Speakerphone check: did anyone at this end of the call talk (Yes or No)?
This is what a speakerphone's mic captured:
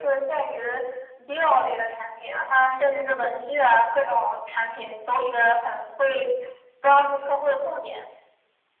No